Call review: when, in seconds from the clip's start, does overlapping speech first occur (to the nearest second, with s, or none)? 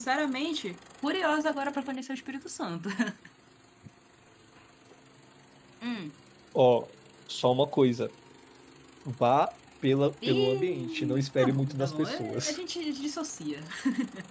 10 s